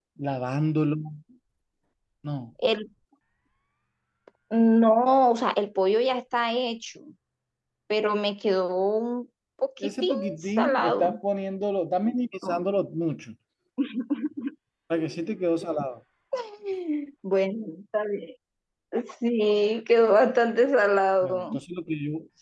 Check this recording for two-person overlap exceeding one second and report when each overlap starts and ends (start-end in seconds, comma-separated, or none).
9.9-11.2